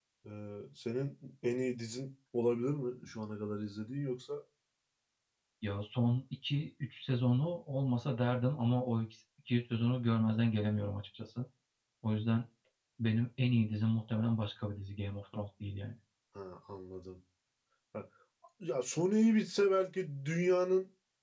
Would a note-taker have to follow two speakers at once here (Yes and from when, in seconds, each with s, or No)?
No